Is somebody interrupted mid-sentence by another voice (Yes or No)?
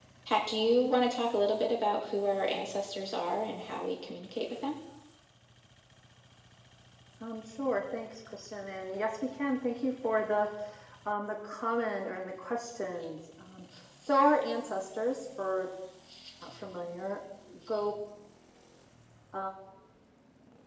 No